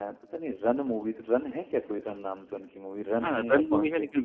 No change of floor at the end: No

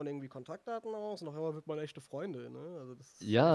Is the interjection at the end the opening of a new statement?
Yes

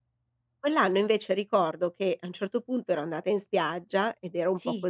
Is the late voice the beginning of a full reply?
No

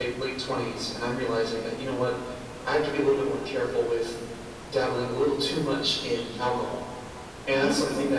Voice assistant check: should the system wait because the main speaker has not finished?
Yes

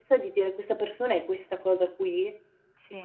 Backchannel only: No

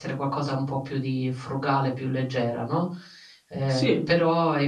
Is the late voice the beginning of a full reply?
No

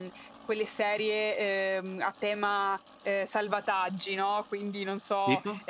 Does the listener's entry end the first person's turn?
No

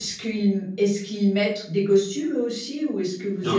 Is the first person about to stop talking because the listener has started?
No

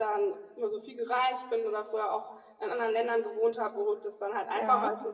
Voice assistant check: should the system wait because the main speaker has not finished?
Yes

